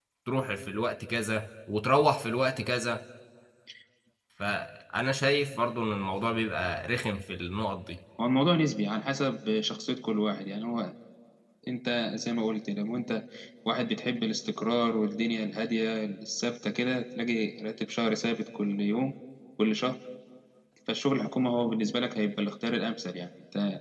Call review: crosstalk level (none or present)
none